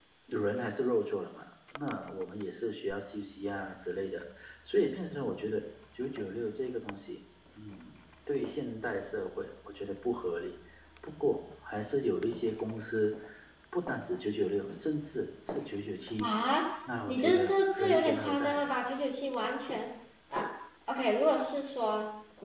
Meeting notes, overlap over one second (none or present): present